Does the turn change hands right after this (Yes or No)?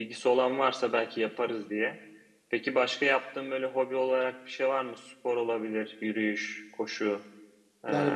Yes